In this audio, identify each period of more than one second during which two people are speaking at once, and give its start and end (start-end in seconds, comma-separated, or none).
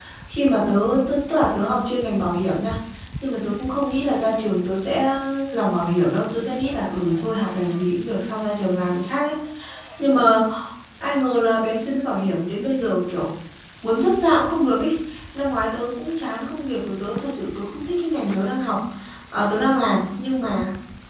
none